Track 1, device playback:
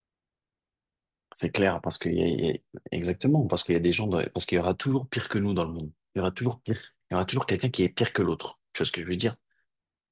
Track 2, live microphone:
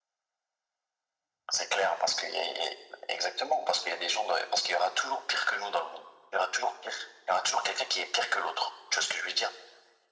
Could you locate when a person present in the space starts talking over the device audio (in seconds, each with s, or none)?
none